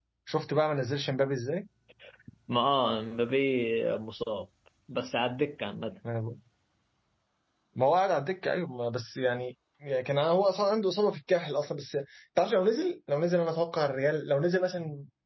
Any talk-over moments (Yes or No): No